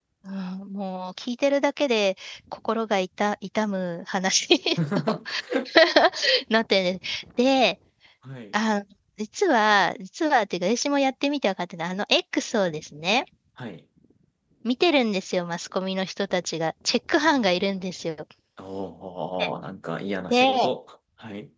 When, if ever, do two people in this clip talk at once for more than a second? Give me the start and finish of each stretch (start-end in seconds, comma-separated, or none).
none